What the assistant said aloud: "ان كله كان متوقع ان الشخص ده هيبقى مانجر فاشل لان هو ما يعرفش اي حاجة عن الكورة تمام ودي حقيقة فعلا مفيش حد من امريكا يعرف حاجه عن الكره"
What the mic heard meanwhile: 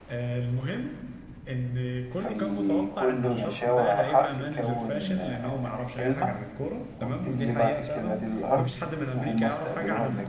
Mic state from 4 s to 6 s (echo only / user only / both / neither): both